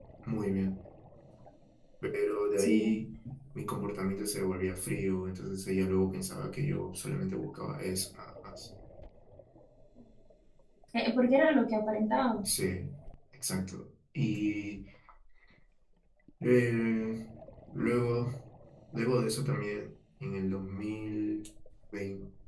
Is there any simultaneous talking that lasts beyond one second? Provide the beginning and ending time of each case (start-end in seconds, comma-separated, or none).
none